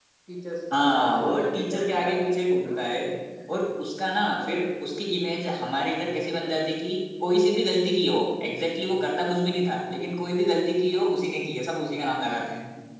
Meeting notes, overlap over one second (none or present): present